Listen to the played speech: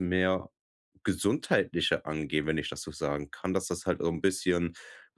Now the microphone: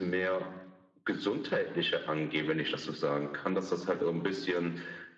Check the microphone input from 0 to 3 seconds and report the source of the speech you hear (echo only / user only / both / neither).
echo only